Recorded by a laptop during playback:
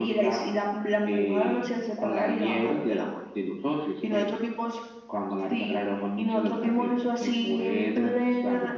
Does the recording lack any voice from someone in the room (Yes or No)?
Yes